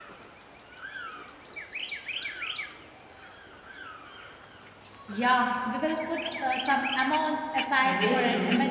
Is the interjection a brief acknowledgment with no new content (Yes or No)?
No